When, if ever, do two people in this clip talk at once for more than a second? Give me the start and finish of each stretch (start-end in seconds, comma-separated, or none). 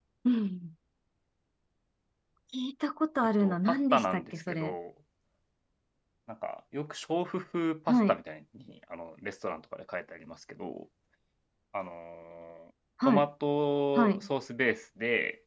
3.4-4.7